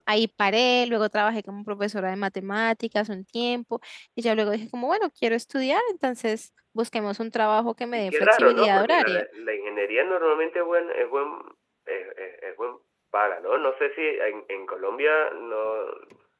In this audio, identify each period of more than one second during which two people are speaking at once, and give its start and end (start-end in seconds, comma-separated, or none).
7.9-9.2